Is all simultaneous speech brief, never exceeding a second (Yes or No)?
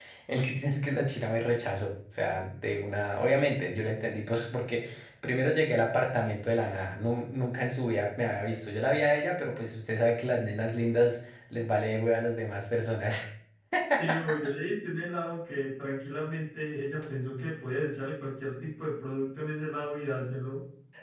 Yes